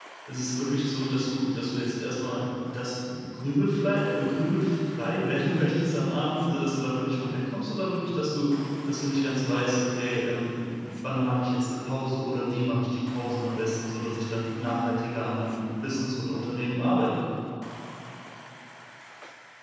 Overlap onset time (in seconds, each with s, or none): none